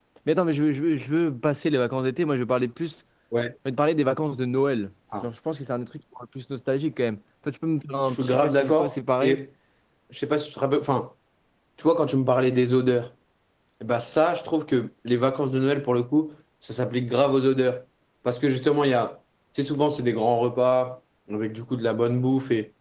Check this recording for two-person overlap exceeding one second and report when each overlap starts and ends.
8.1-9.4

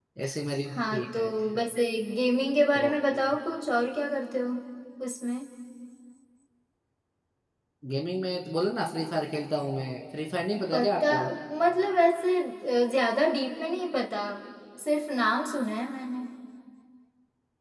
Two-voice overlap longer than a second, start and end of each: none

